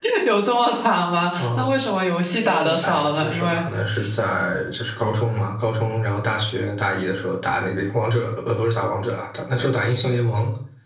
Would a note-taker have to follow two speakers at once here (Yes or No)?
Yes